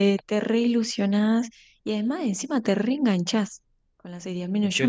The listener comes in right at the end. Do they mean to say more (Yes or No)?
No